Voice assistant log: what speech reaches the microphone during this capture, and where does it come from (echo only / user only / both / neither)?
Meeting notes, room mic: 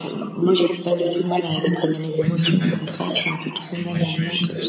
both